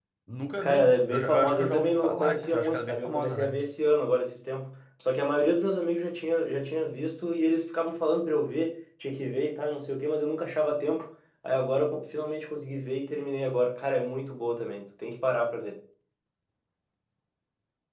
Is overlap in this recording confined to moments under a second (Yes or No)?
No